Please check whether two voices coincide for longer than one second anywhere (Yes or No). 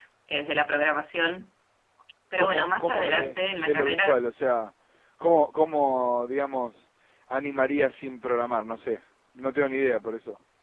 Yes